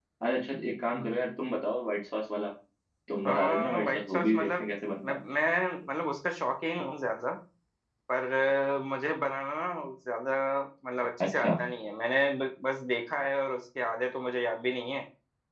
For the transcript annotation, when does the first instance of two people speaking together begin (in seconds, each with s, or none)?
3.3 s